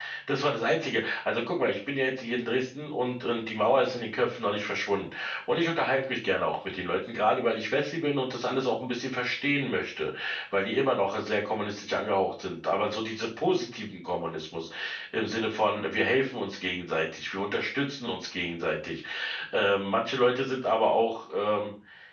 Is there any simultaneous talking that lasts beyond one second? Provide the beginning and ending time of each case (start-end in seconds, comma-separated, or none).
none